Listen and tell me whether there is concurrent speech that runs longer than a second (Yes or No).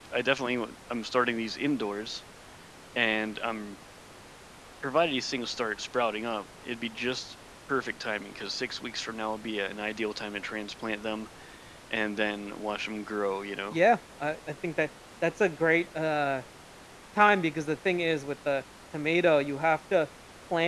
No